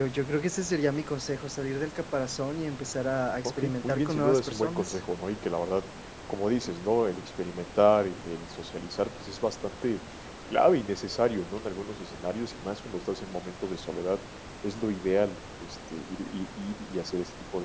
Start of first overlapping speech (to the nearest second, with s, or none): 3 s